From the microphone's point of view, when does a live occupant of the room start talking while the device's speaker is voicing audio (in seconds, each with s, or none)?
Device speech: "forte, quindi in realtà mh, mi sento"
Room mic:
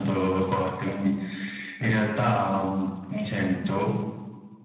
none